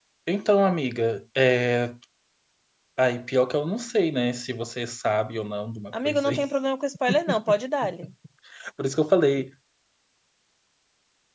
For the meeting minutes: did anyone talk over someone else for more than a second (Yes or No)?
No